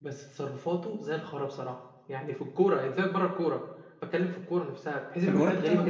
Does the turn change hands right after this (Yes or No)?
Yes